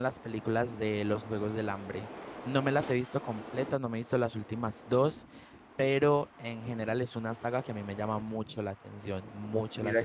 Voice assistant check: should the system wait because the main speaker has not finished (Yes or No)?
No